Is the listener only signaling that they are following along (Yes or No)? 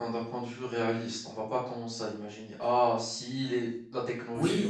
No